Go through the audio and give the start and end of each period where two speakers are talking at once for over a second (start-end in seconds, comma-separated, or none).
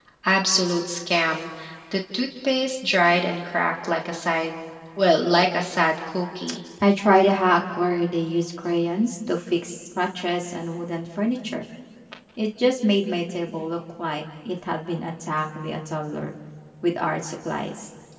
none